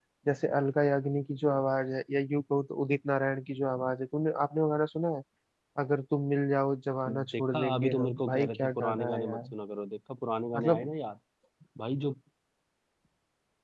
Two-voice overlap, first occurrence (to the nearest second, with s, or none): 7 s